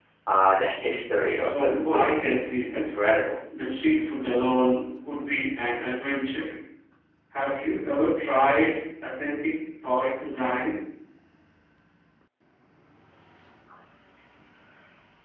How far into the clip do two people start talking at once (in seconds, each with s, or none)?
1.5 s